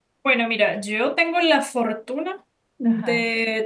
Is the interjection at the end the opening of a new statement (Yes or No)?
No